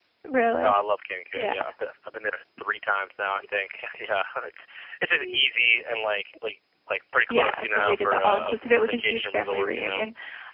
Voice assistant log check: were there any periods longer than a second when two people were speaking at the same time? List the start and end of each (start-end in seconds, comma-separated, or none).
7.3-10.0